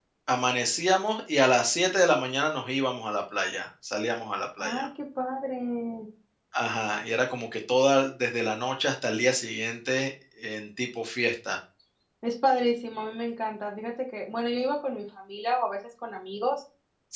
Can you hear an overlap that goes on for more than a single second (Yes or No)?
No